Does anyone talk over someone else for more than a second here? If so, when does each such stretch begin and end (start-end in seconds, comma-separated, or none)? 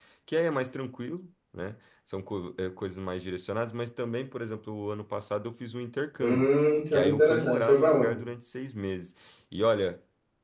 6.9-8.2